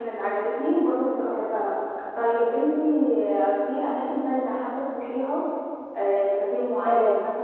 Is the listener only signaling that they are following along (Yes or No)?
Yes